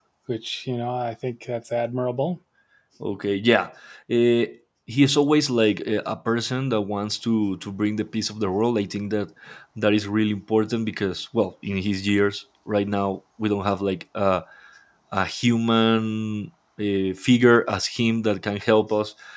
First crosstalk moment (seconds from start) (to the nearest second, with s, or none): none